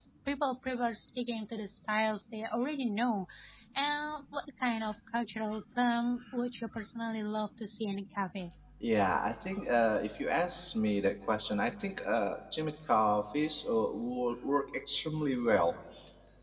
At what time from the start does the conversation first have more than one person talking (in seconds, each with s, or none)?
none